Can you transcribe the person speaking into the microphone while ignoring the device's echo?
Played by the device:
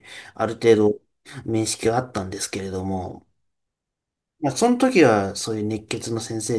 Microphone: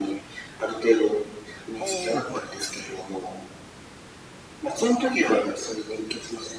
おー、はい。

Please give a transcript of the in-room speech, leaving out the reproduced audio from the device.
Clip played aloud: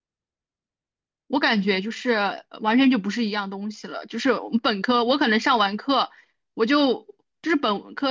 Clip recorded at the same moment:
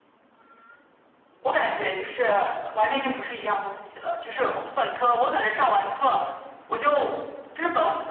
none

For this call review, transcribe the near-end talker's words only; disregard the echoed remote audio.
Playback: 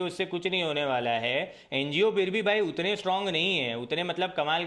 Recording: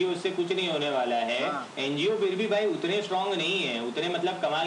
हाँ

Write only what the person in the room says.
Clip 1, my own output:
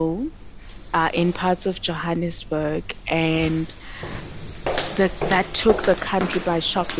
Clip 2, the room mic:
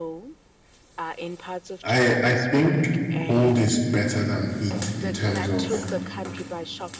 I I think cold is better than heat in terms of

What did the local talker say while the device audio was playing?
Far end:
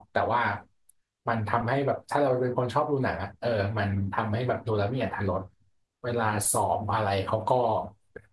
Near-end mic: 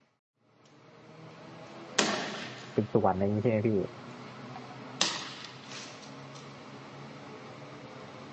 สืบสวนอะไรอ่งนี้ใช่ไหมพี่

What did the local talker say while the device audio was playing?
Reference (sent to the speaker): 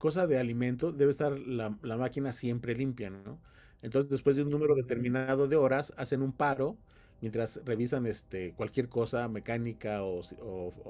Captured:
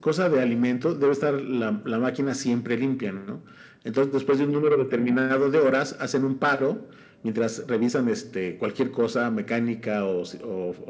none

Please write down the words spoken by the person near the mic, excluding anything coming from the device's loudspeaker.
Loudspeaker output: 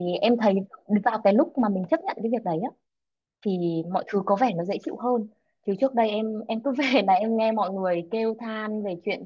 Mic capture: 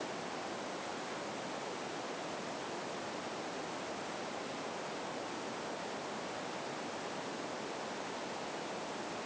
none

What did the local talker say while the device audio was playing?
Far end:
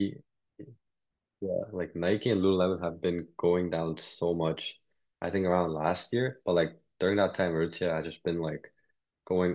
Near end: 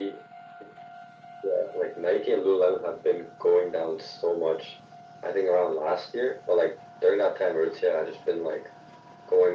none

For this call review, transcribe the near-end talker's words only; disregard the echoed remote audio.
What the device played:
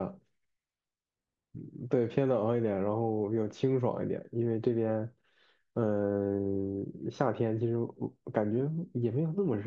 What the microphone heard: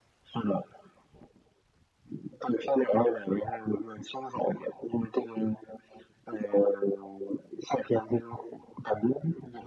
none

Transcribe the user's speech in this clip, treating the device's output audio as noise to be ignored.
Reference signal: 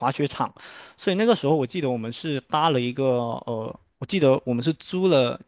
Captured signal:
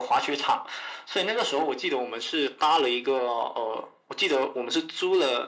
none

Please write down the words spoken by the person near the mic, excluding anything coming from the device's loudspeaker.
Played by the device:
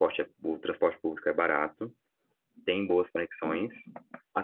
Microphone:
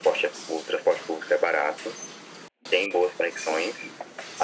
none

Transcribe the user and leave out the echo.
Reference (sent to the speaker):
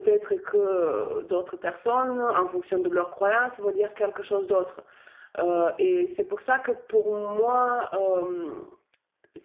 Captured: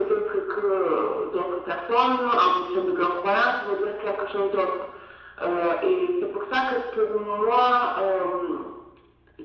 none

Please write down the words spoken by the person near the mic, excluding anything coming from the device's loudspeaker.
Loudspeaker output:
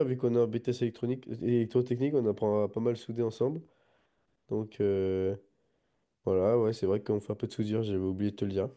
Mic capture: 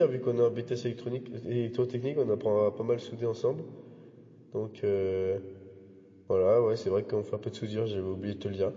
none

